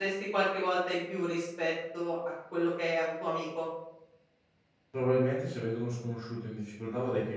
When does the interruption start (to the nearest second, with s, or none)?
none